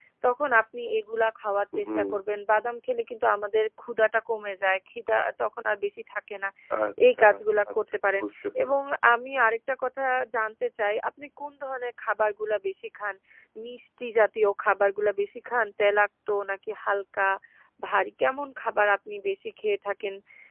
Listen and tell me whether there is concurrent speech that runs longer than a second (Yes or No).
No